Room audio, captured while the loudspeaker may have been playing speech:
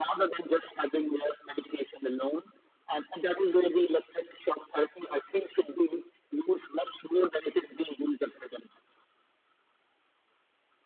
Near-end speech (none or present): none